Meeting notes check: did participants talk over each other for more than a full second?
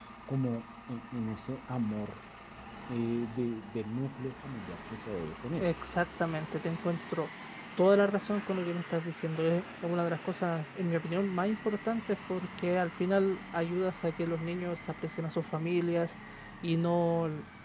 No

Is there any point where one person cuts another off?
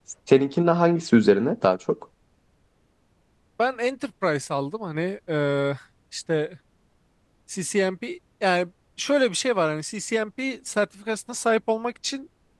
No

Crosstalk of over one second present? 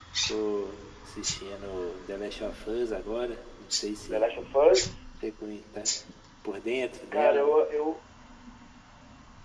No

